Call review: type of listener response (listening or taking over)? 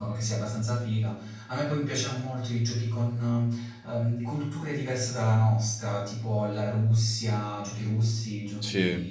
listening